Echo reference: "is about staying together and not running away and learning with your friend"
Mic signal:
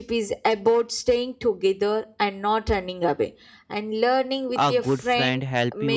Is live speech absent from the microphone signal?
No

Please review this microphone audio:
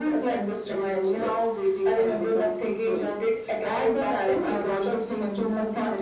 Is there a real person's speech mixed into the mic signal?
No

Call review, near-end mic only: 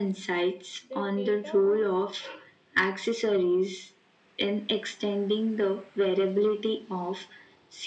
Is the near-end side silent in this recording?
No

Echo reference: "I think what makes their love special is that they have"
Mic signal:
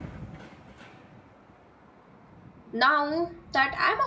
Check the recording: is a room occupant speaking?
Yes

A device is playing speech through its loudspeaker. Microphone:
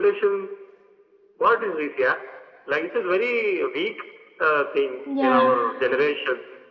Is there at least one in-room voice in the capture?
Yes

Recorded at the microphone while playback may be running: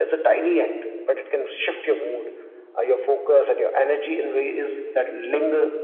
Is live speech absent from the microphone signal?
Yes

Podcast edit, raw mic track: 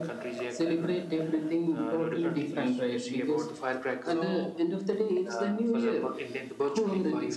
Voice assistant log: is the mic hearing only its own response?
No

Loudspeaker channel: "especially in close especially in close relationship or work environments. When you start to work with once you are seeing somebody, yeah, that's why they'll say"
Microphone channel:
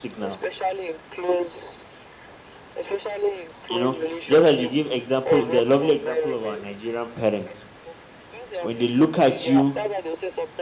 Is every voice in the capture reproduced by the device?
No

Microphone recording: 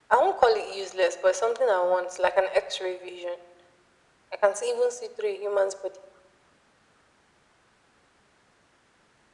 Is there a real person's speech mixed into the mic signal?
No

